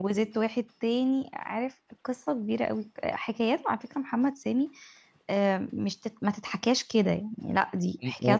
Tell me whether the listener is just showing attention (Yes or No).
No